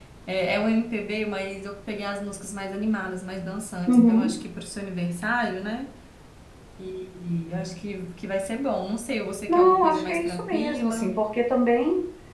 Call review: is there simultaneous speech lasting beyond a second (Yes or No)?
Yes